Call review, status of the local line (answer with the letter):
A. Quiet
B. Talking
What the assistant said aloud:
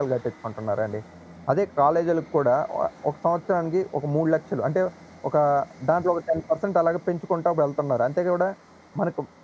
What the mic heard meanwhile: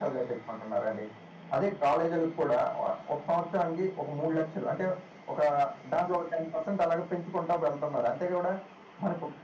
A